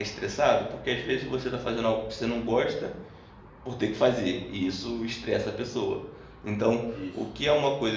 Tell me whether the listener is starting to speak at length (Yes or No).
No